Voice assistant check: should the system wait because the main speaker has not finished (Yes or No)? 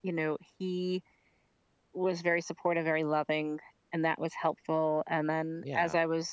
Yes